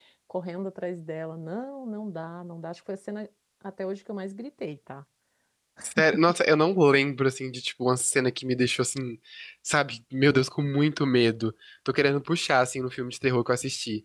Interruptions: none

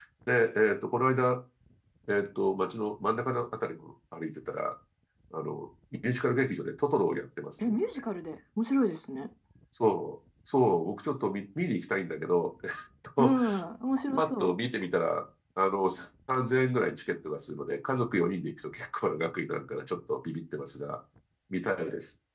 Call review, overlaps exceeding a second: none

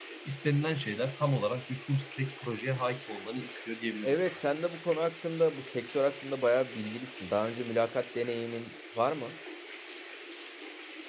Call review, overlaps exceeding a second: none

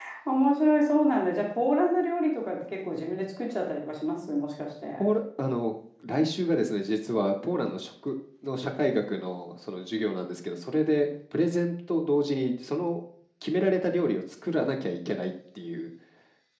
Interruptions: none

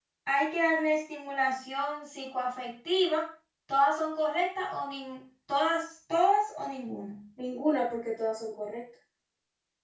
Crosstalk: none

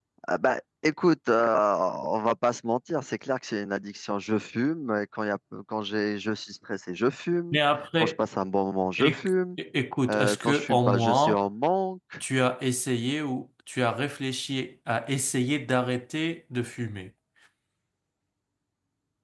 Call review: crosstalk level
present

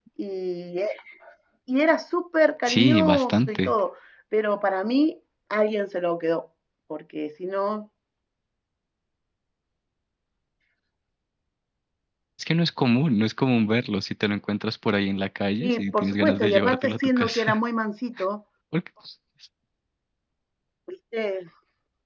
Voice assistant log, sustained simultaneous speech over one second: present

